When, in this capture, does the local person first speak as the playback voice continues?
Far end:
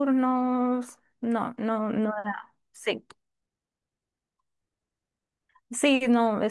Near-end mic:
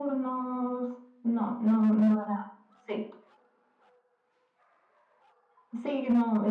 none

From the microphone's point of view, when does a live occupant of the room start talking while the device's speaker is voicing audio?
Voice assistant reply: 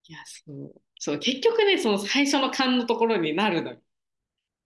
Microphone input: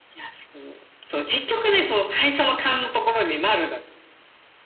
none

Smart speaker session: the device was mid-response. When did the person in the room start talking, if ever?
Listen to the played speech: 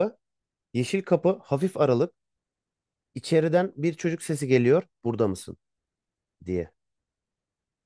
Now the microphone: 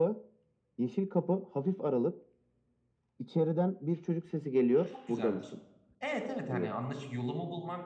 4.8 s

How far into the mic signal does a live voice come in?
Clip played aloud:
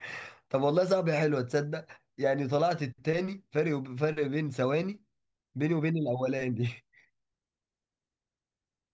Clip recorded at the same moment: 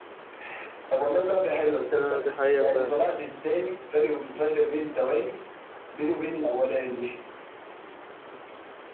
1.9 s

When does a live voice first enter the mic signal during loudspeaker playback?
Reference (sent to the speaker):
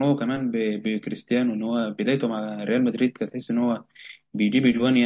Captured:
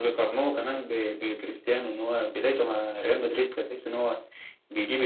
none

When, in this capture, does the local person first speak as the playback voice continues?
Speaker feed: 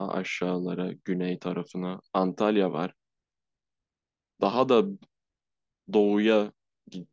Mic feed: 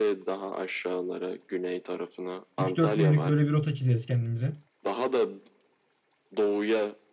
2.6 s

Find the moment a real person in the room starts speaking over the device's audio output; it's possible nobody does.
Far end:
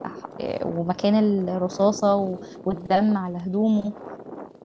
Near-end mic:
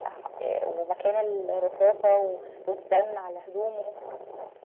none

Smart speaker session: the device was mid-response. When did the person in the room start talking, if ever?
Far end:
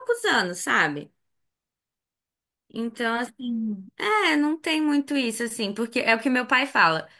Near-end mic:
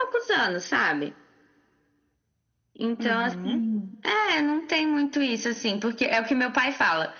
3.0 s

